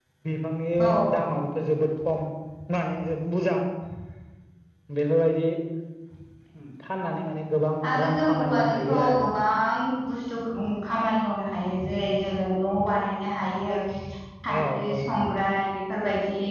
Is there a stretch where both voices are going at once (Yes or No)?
Yes